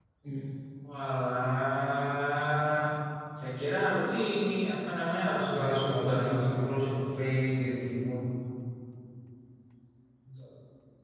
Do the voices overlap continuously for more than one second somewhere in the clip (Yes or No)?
Yes